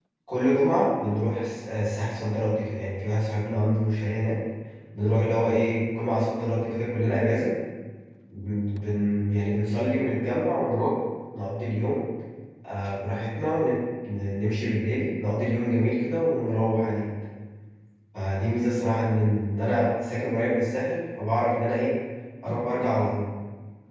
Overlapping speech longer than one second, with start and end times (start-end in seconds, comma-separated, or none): none